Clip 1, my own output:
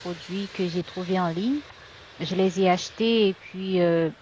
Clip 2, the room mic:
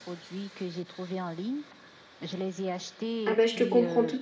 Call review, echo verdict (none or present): present